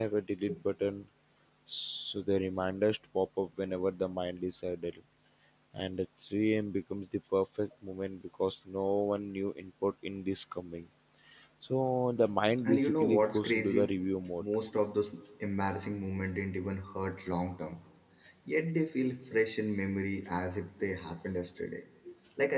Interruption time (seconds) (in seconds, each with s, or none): 12.7 s